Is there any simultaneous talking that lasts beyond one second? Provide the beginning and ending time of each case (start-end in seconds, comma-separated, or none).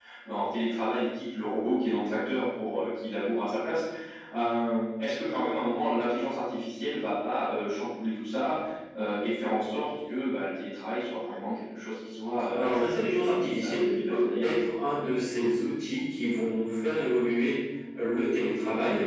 12.5-14.6